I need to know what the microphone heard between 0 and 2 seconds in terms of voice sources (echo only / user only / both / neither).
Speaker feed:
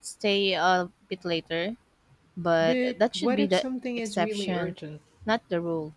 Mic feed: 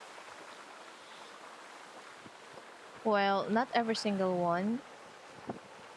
neither